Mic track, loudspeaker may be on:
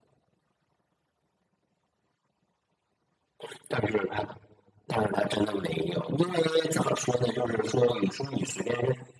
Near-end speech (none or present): none